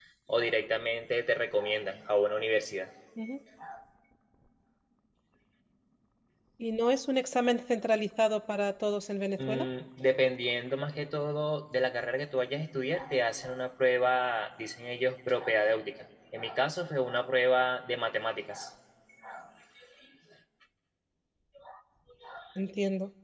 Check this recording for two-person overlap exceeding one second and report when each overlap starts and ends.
none

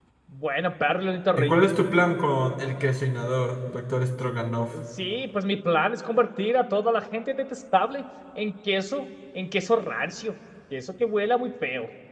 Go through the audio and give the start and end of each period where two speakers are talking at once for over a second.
none

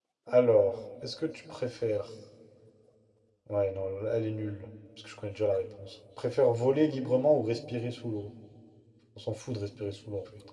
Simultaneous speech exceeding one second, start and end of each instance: none

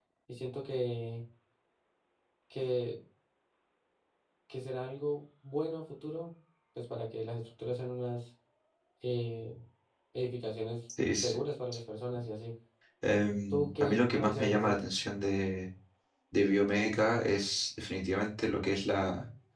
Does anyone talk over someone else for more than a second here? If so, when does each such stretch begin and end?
13.5-14.8

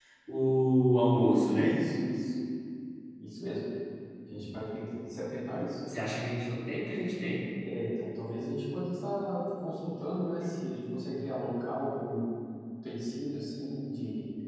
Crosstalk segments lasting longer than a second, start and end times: none

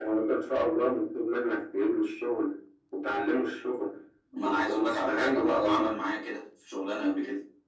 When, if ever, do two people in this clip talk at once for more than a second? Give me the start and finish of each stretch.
4.7-6.0

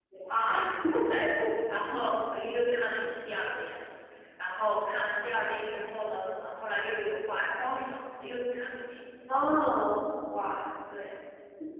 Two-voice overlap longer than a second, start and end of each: none

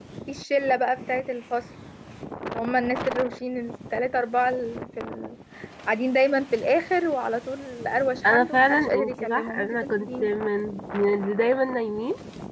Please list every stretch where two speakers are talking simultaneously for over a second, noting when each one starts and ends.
8.2-10.3

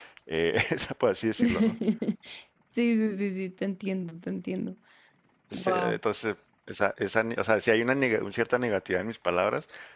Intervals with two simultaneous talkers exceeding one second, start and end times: none

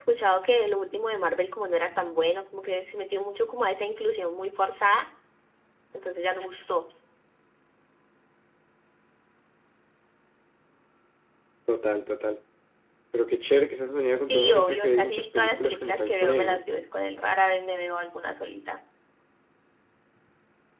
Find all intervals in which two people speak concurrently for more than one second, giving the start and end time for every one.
14.2-16.6

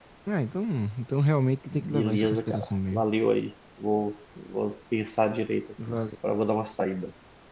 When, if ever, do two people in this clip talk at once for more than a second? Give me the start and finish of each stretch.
1.8-3.0

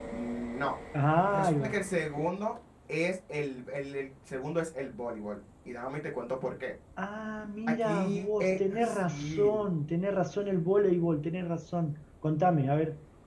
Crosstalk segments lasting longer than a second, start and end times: 7.7-9.6

